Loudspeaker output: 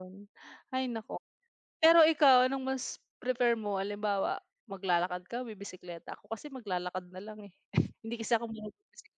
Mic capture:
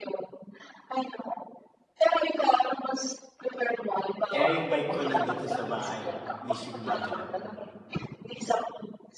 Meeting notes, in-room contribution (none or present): present